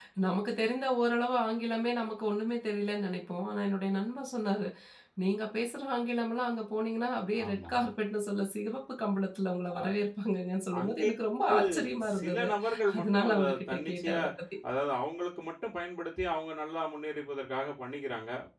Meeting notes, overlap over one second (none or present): present